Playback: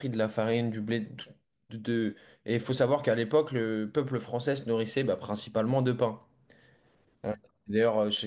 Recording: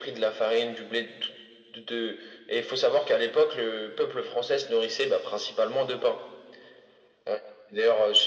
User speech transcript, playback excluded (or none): none